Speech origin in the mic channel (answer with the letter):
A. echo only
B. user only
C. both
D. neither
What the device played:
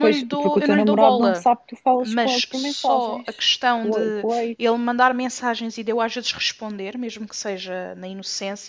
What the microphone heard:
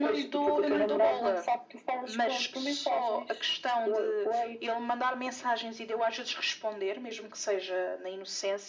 A